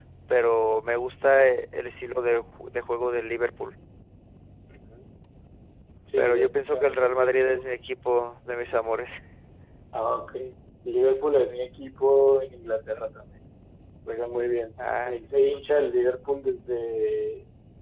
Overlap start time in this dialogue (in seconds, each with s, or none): 6.2 s